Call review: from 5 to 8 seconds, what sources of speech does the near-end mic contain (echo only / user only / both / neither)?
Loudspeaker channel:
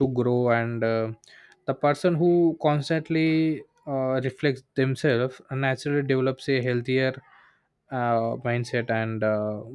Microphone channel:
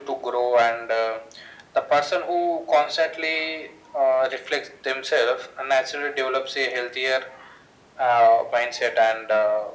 echo only